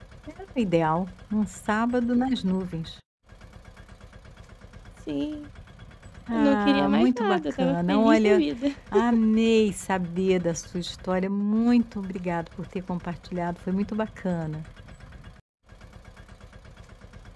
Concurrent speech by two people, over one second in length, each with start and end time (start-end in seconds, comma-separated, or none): 6.3-8.4